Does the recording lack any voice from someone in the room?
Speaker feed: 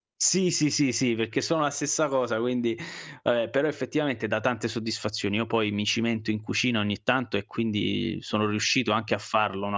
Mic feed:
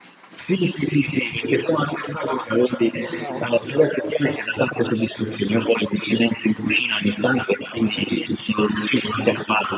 No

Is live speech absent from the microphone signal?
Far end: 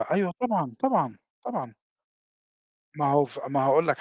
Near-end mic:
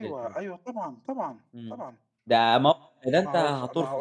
No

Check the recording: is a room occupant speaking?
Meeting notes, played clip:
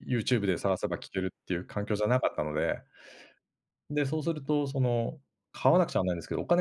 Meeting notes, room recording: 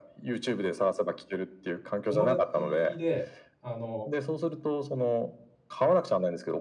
Yes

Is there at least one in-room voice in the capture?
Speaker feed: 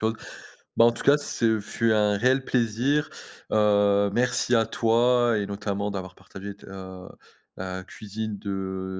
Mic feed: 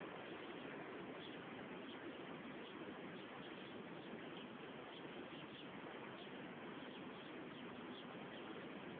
No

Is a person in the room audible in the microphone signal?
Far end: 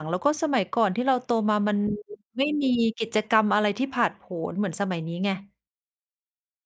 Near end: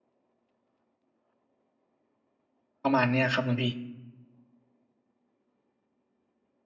Yes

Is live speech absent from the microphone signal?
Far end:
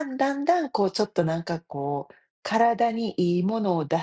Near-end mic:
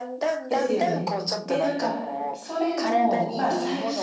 No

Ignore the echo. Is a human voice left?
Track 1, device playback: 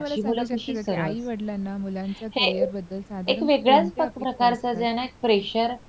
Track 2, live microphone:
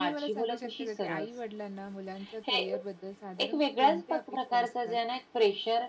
No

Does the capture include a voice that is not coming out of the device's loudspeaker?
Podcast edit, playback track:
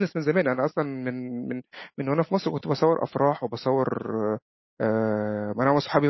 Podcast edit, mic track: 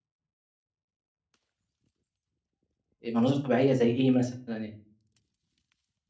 Yes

